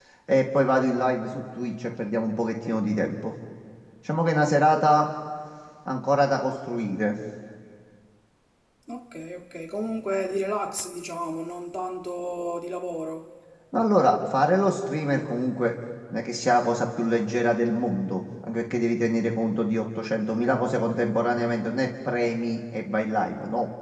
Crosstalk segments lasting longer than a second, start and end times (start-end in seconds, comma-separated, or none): none